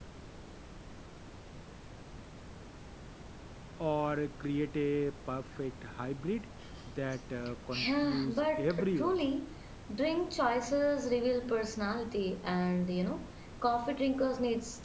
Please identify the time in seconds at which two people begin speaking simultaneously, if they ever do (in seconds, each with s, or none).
7.7 s